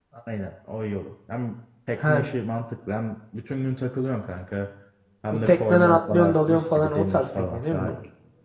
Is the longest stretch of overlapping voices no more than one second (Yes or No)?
No